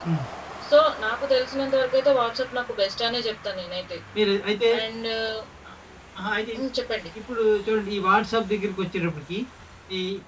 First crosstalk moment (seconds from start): none

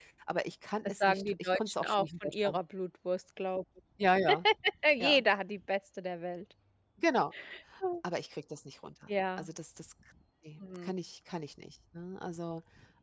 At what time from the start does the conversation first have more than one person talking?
1.0 s

